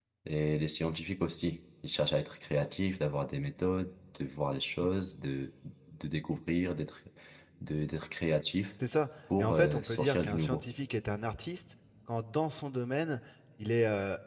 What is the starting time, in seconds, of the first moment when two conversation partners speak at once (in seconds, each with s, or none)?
9.4 s